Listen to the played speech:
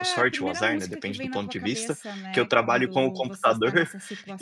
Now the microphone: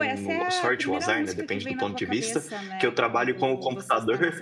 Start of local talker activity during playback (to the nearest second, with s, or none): none